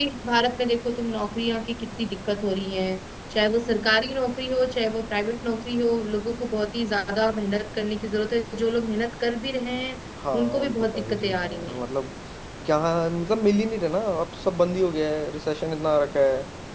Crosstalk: present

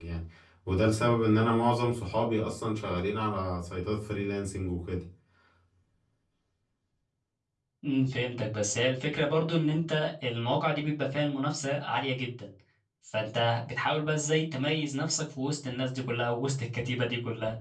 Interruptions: none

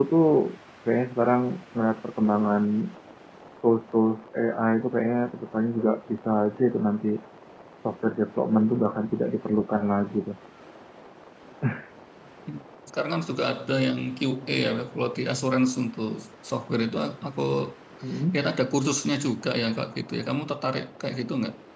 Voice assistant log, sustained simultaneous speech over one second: none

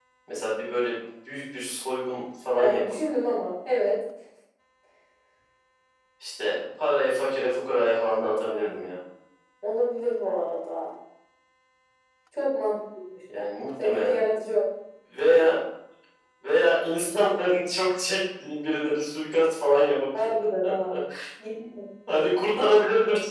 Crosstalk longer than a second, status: none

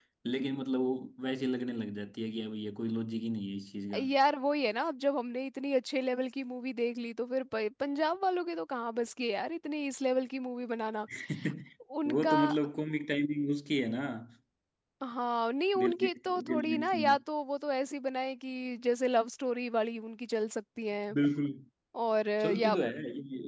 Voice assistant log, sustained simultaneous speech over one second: present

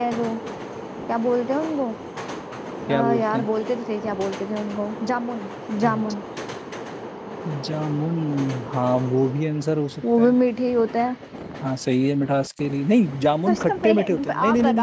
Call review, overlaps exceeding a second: present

